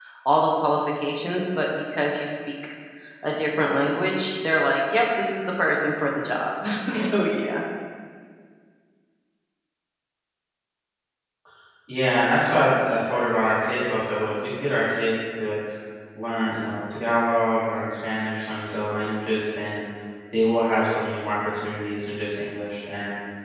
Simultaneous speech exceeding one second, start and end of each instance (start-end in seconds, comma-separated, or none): none